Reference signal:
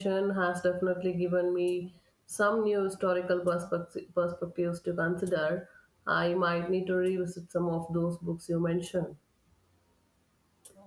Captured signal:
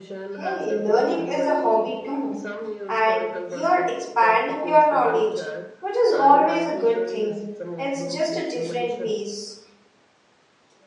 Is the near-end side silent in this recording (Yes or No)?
No